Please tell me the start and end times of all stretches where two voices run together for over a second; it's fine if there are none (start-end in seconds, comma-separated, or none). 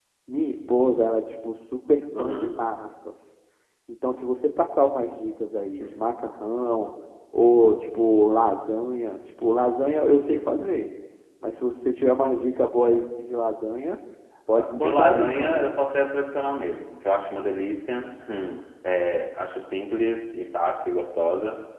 14.5-15.8